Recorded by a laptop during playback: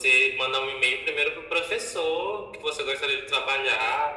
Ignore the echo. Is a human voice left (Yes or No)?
No